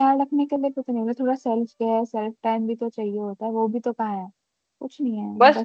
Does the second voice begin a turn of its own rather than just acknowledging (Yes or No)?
Yes